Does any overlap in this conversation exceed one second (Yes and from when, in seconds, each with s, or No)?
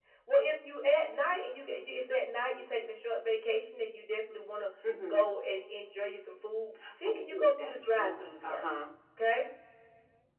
Yes, from 6.8 s